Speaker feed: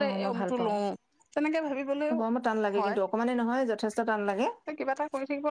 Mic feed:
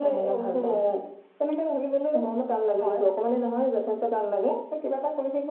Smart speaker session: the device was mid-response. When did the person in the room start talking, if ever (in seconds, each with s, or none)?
none